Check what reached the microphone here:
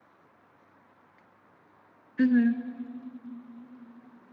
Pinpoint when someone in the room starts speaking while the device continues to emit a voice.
2 s

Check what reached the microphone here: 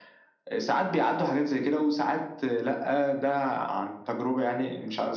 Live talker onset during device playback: none

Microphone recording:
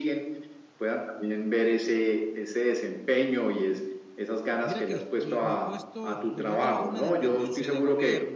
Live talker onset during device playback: 5 s

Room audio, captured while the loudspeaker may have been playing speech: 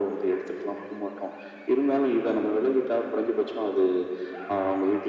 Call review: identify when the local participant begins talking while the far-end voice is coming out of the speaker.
none

